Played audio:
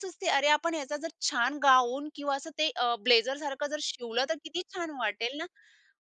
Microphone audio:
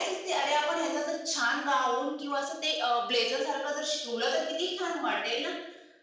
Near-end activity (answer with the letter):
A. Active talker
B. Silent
B